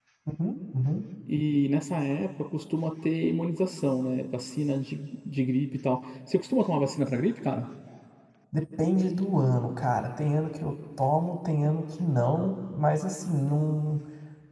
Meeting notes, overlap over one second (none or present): none